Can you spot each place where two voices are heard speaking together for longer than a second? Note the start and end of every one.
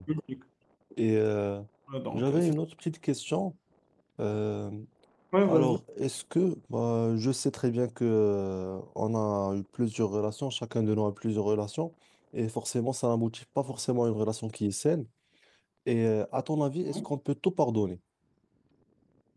none

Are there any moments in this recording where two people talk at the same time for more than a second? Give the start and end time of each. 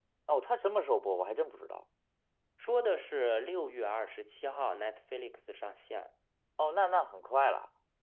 none

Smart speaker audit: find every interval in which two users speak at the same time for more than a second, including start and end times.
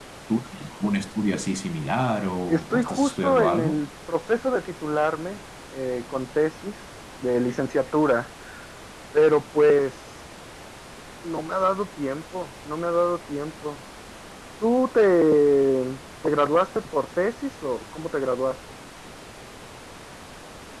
2.5-3.8

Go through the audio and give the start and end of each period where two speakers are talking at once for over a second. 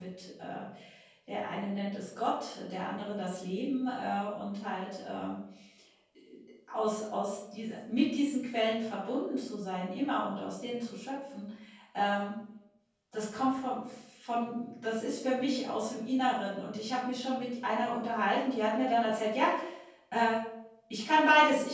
none

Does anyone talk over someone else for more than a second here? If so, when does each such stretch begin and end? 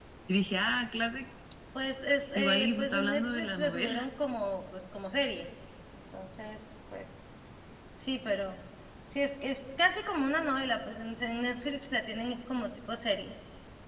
2.4-4.1

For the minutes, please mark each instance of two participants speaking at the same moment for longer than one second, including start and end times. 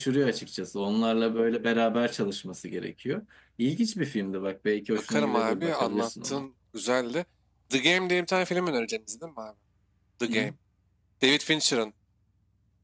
5.1-6.4

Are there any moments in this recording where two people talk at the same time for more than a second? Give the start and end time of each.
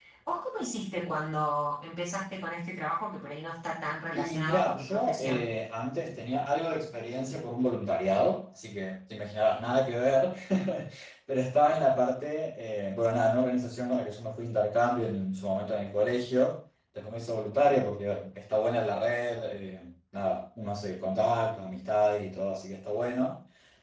4.2-5.5

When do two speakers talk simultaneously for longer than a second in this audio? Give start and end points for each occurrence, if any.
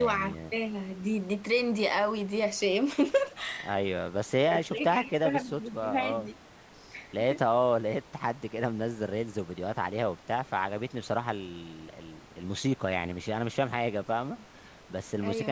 4.7-6.3

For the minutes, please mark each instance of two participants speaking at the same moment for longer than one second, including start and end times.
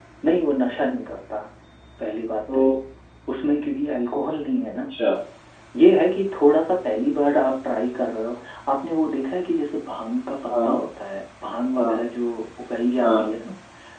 none

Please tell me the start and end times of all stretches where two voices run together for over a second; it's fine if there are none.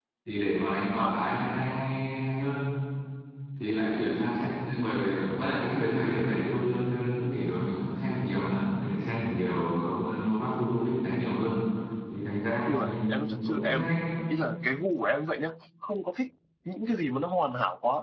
12.7-13.9

